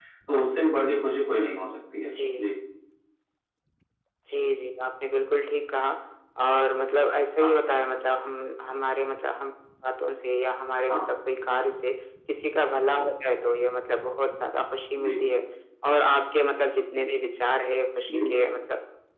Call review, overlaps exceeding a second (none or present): none